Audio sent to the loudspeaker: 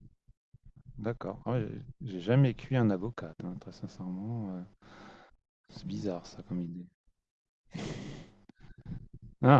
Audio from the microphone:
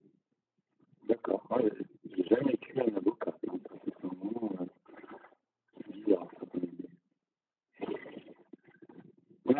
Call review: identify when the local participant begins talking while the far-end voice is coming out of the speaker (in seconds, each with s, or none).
none